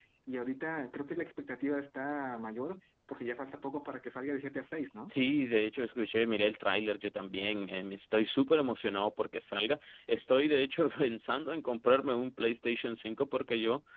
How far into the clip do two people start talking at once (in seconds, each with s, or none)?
none